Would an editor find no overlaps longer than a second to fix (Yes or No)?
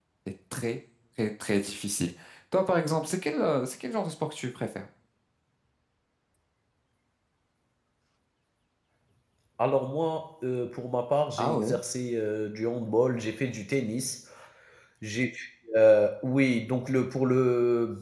Yes